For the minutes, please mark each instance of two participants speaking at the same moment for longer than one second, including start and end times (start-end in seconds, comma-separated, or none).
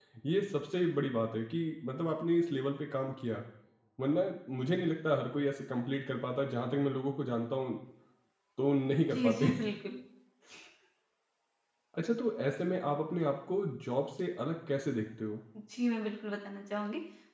none